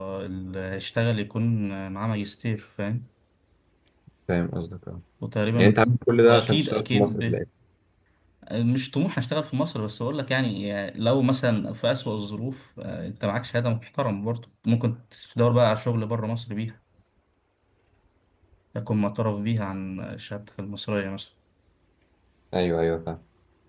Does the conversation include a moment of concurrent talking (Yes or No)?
Yes